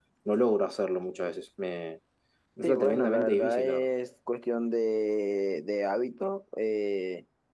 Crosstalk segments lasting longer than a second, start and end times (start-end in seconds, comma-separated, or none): 2.6-3.9